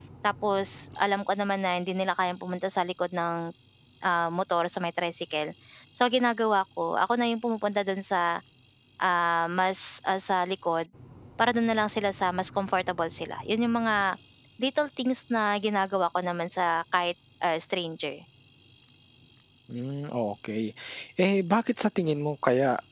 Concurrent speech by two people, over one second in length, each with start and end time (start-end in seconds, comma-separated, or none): none